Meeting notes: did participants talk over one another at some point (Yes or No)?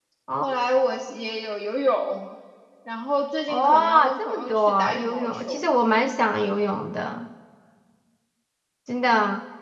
Yes